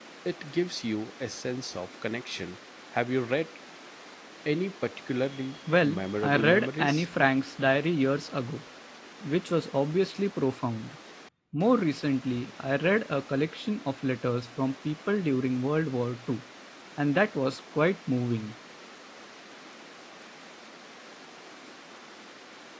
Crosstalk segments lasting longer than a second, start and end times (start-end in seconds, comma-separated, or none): 5.8-7.0